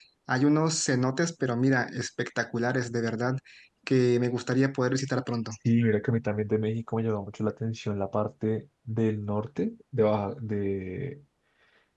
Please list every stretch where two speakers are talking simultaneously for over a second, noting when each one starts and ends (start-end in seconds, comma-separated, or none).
none